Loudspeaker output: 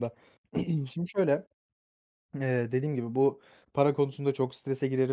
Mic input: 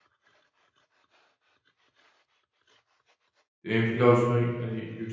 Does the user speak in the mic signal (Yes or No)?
Yes